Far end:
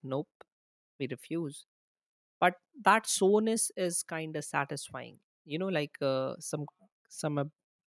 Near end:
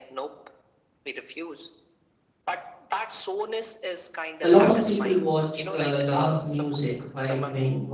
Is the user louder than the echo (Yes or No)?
Yes